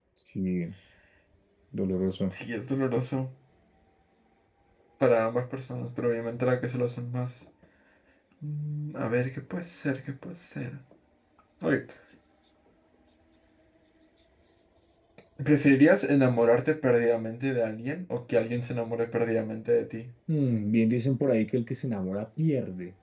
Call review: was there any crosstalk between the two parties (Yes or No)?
No